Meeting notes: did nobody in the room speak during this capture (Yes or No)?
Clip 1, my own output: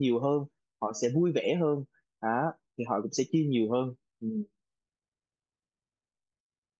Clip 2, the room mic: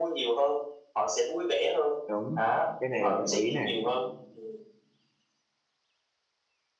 No